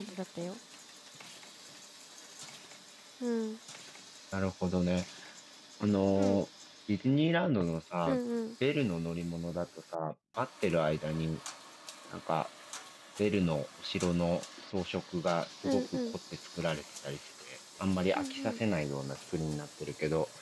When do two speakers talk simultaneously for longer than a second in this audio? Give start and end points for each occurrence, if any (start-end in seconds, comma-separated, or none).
none